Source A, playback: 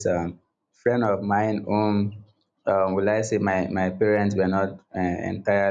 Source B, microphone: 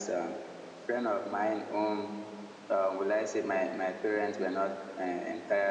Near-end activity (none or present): none